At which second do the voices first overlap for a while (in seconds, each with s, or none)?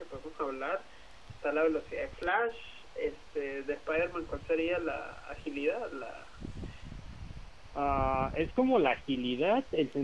none